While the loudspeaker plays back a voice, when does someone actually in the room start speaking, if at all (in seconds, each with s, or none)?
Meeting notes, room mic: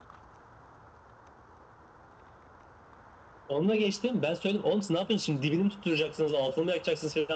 none